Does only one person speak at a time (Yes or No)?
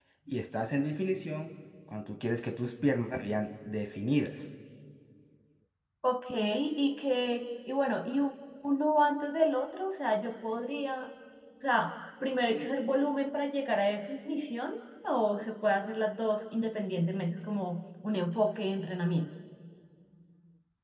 Yes